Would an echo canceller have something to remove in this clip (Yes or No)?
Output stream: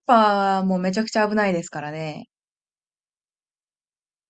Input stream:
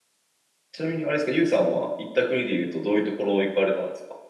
No